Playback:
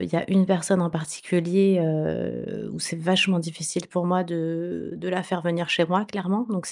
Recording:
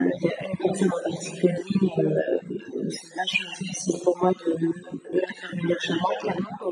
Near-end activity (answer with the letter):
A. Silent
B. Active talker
A